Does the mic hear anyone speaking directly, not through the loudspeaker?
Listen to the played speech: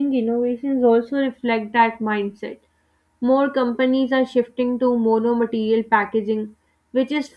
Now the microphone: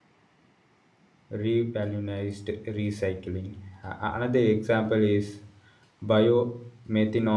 Yes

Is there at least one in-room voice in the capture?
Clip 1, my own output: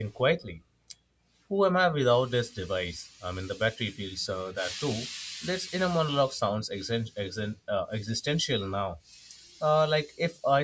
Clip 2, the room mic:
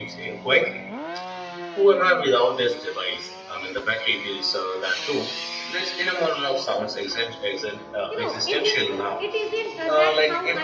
Yes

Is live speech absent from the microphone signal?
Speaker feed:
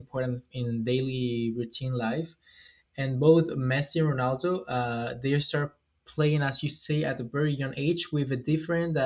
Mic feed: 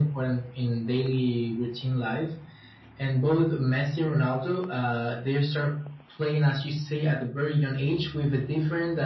Yes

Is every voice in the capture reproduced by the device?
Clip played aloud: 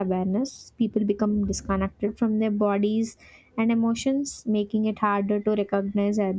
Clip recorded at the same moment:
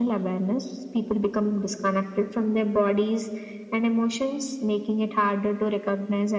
Yes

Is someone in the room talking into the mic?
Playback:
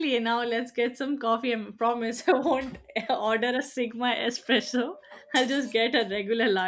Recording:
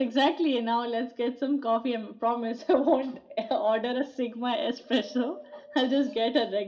No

